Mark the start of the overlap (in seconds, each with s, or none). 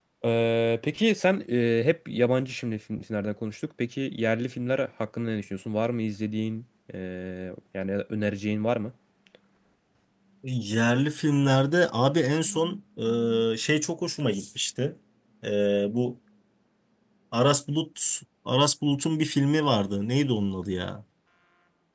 none